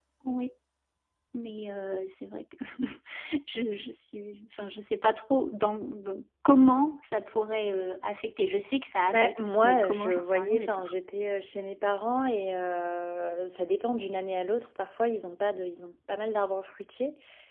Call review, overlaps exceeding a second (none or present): present